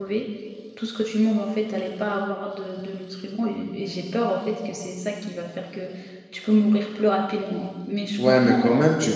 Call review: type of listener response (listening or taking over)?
taking over